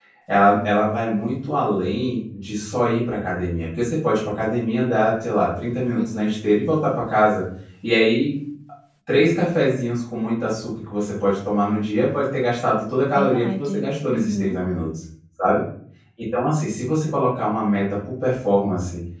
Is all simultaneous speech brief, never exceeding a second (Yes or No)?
No